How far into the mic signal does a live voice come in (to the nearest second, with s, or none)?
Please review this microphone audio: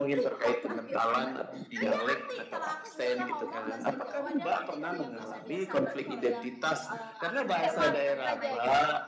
8 s